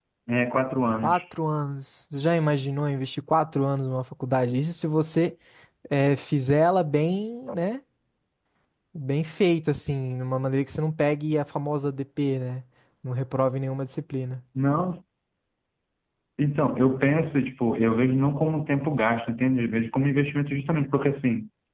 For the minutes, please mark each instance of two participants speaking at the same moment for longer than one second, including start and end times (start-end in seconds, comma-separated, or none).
none